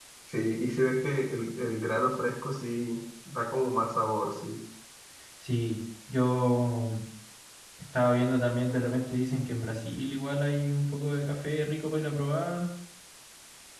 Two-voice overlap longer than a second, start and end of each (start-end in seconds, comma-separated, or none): none